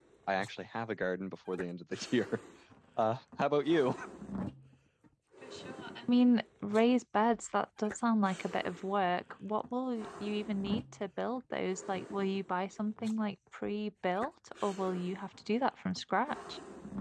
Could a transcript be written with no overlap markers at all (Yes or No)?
Yes